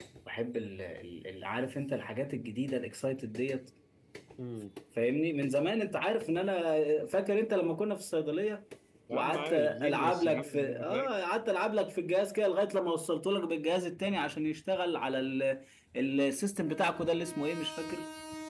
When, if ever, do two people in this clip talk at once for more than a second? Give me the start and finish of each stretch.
9.1-11.1

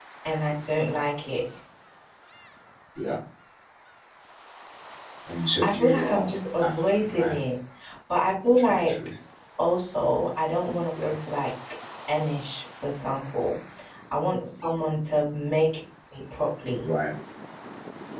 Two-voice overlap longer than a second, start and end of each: 5.6-7.4

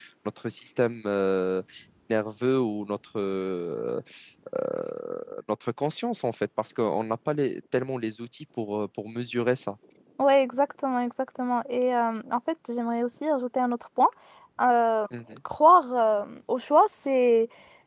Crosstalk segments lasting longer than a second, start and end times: none

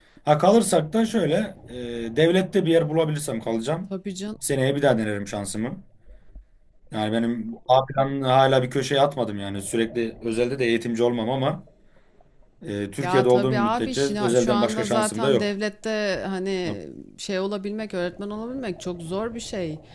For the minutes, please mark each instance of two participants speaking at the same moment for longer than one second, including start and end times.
13.0-15.5

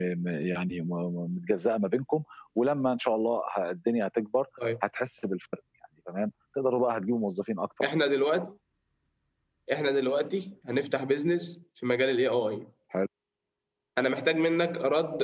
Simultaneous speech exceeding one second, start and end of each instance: none

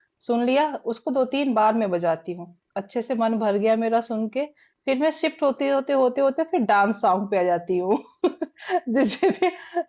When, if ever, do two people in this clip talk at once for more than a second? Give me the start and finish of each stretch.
none

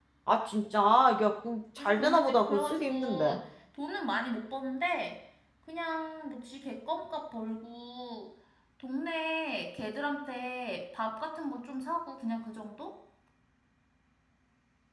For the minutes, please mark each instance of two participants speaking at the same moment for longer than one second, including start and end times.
1.8-3.4

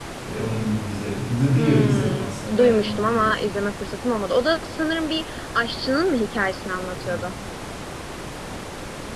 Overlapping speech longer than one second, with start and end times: 1.6-3.6

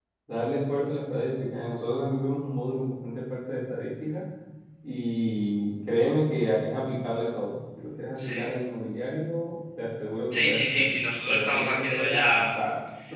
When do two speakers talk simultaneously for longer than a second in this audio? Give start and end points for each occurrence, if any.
10.3-12.4

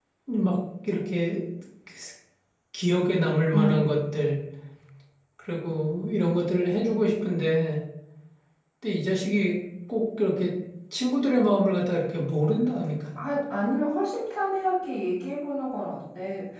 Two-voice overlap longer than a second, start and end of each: none

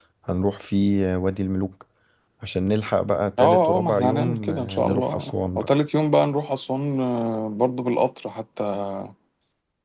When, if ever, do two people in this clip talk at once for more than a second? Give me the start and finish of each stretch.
3.4-5.7

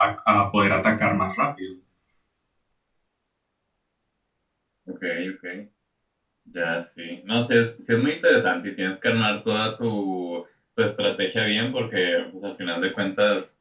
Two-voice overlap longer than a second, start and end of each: none

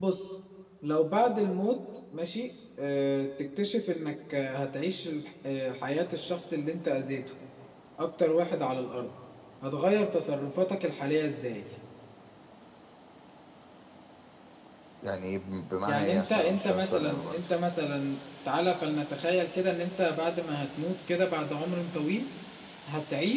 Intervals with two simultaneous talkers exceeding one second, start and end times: 15.9-17.4

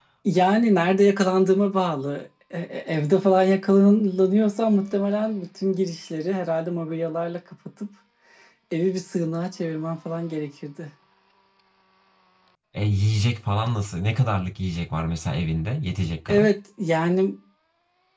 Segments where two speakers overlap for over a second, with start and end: none

